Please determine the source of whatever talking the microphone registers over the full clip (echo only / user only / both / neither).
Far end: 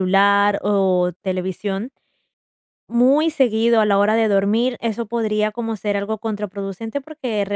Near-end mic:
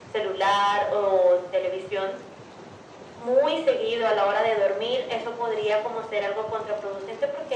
echo only